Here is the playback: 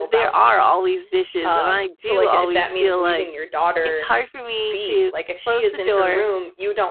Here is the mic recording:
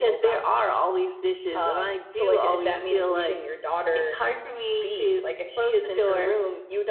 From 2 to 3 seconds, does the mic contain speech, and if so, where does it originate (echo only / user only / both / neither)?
echo only